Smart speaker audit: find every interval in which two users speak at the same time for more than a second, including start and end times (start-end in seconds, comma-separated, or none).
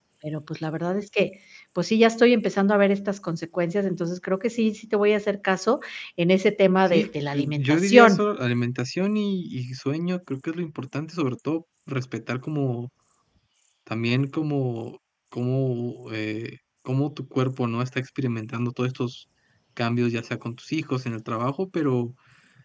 6.9-8.3